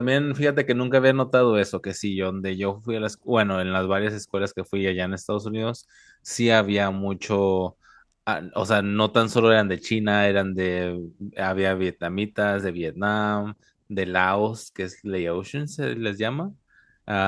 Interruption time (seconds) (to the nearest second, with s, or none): none